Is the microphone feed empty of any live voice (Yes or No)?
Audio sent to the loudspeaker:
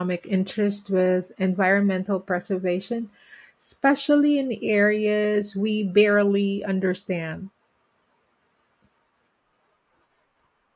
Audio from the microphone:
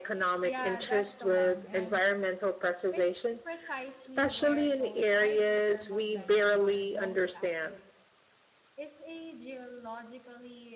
No